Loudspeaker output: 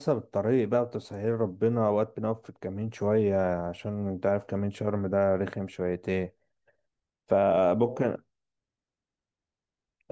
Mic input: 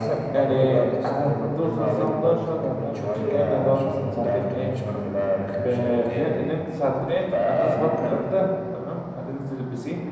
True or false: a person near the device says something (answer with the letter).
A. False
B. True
B